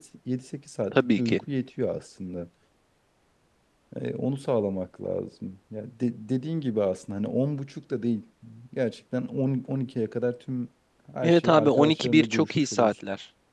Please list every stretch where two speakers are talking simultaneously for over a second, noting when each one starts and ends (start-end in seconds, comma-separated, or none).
11.2-12.9